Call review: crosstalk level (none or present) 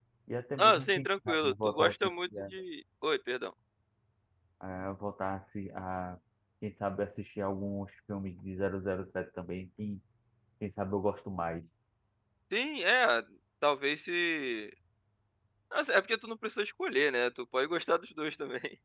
present